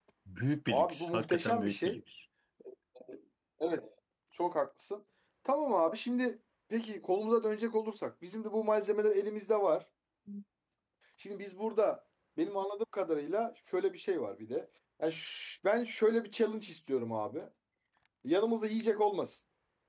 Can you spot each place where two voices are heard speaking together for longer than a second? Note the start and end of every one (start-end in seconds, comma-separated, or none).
0.7-2.0